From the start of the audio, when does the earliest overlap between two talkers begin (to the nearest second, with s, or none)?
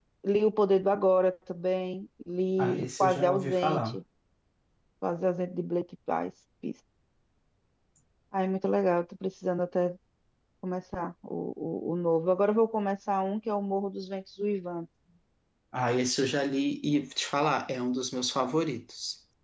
3 s